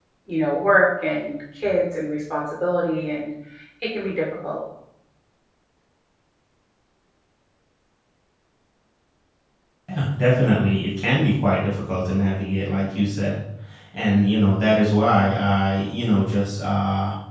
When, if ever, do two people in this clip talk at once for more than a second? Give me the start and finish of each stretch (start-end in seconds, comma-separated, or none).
none